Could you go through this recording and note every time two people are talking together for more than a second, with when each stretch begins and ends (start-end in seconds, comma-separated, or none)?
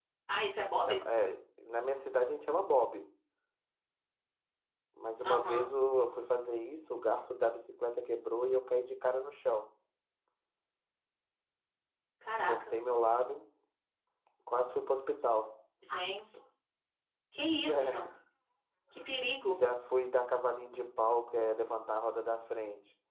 none